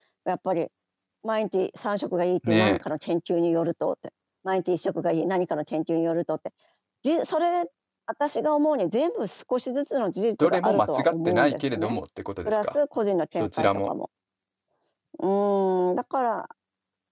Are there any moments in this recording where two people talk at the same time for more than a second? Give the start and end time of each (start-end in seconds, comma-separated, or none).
10.4-12.0